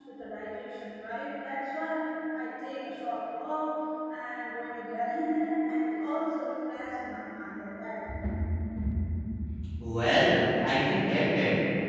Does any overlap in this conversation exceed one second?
No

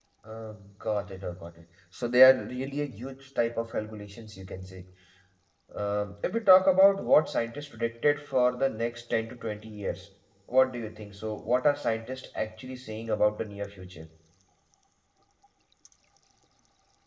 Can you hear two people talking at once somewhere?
No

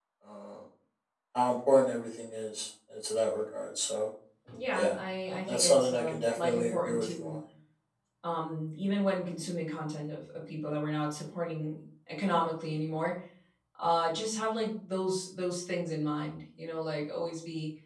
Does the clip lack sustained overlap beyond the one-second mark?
No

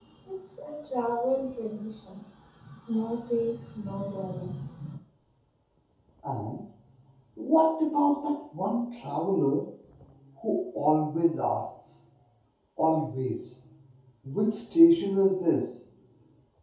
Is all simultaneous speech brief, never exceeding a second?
Yes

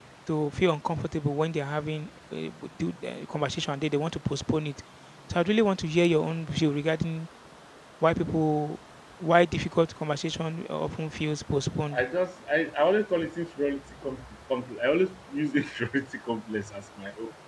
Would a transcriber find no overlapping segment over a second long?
Yes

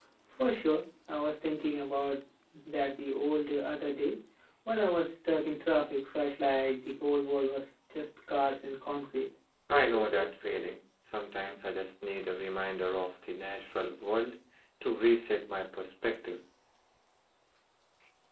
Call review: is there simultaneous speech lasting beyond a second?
No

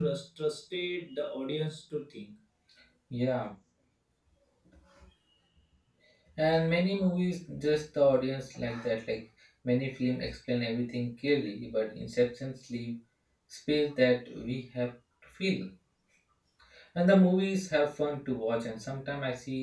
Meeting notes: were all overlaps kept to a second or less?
Yes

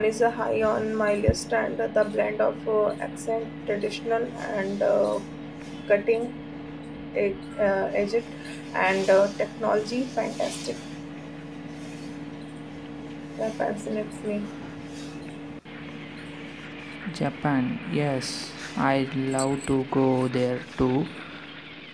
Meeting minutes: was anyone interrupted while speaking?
No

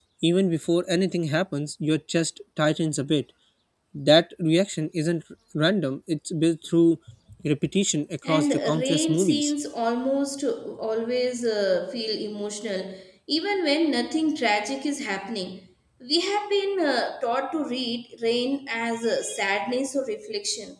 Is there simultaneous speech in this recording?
Yes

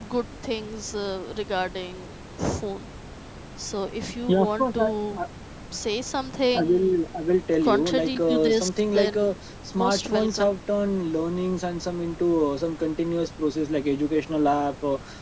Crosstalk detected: Yes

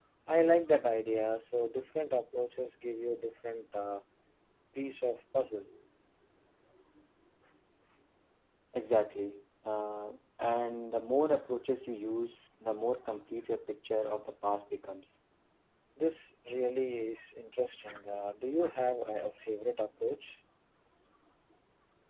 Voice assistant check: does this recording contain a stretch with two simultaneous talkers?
No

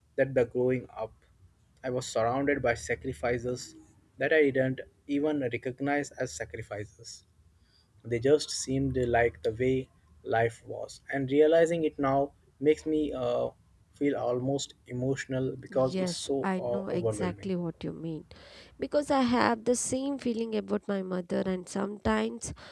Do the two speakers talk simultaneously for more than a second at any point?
Yes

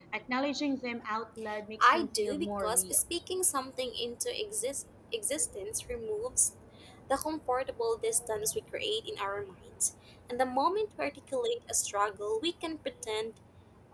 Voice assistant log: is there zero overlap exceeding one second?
No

